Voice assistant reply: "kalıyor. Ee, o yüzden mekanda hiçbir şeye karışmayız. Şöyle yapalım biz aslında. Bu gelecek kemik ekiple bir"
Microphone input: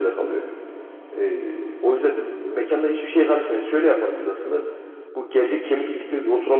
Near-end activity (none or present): none